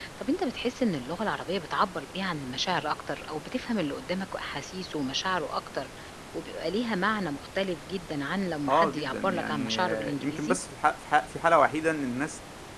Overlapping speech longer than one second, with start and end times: 8.7-10.6

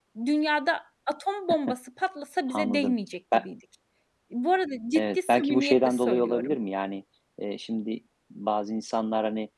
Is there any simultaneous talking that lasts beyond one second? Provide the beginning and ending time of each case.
5.0-6.6

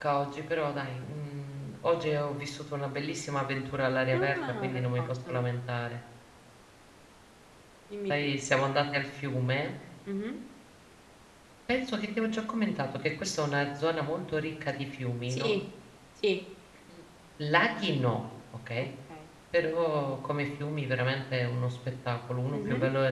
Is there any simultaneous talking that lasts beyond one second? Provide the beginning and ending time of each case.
4.1-5.5

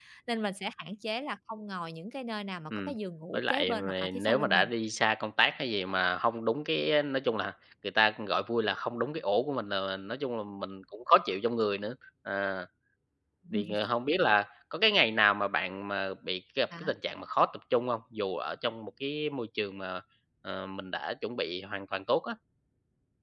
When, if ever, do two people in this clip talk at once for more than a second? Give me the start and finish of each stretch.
3.3-4.7

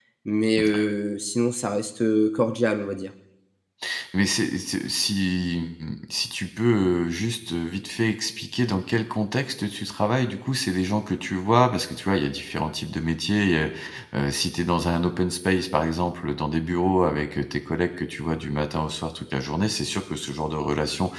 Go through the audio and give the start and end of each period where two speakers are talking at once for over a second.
none

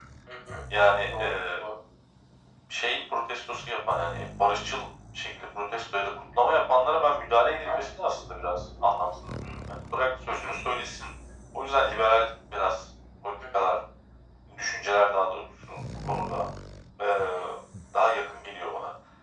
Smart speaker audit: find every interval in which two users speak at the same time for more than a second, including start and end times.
none

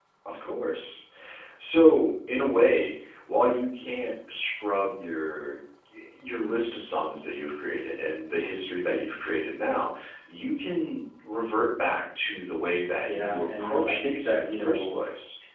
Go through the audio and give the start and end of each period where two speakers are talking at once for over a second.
13.0-15.0

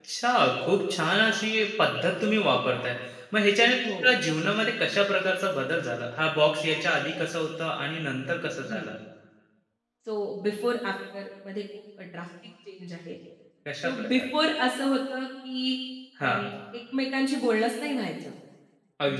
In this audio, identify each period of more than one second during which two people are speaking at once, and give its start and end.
none

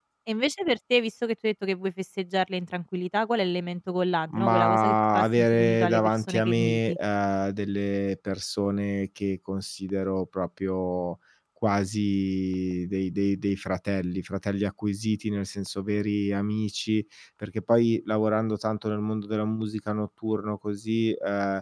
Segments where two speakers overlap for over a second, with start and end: 4.3-7.0

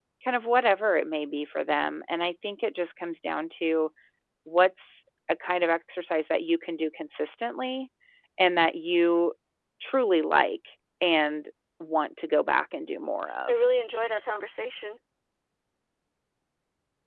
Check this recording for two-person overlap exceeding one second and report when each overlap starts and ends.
none

